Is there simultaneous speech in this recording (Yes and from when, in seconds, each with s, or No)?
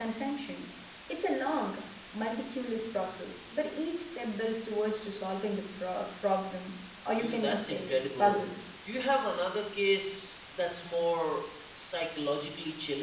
Yes, from 7.2 s